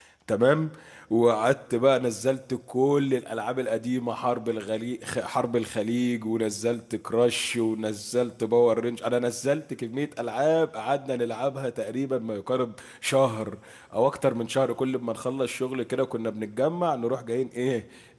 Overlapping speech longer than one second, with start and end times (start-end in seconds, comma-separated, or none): none